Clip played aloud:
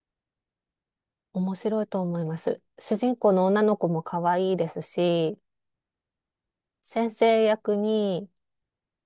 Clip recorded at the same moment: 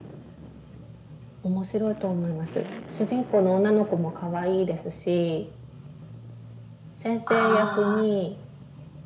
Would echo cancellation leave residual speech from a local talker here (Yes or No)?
Yes